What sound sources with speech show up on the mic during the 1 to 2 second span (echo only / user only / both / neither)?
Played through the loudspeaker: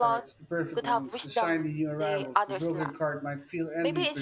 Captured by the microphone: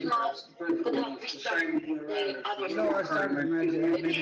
echo only